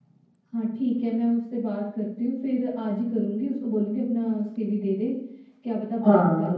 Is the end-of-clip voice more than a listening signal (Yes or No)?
No